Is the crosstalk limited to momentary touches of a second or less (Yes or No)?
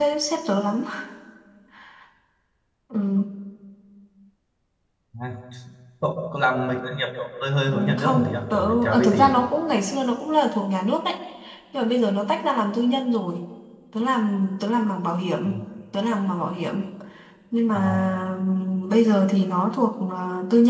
No